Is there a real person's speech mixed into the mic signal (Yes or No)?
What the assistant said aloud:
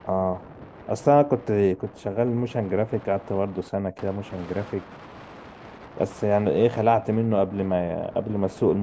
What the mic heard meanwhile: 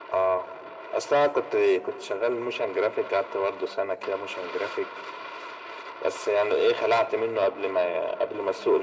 No